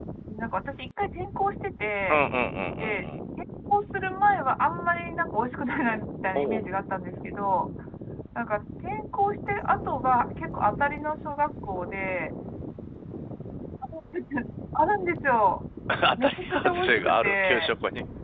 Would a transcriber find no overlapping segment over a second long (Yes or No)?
No